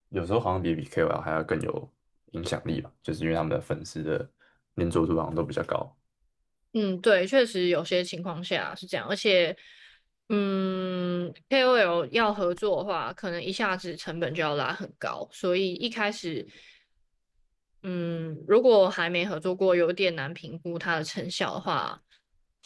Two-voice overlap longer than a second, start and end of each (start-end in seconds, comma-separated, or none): none